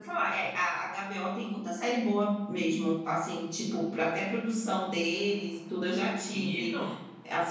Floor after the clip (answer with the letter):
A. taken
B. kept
B